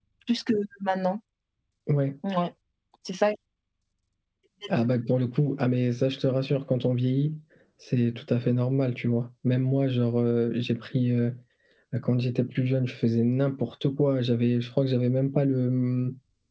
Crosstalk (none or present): none